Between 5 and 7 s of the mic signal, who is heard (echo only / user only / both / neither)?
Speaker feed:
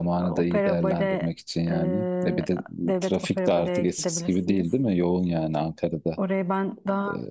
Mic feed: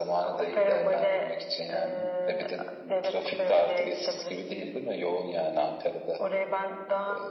echo only